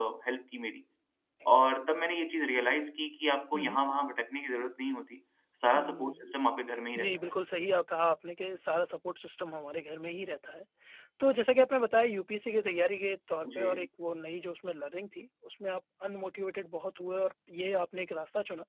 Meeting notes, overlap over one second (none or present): none